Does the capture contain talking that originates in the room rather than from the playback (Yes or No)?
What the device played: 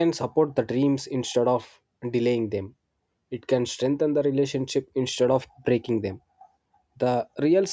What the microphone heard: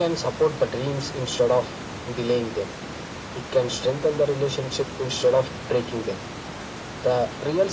No